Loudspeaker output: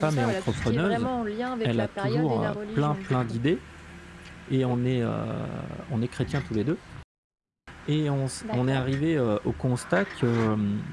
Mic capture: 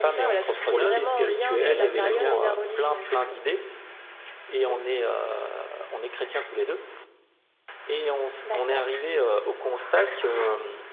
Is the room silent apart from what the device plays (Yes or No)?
No